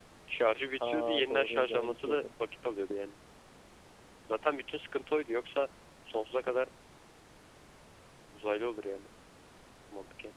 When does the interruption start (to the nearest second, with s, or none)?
1 s